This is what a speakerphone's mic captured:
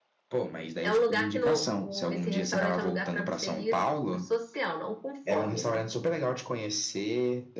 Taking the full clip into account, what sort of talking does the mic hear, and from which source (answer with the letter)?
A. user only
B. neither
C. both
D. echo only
C